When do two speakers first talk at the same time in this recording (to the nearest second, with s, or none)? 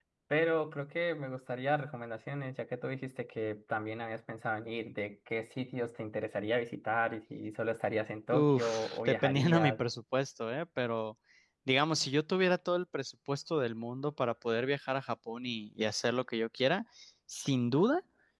8 s